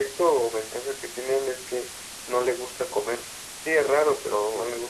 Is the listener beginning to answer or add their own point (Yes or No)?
No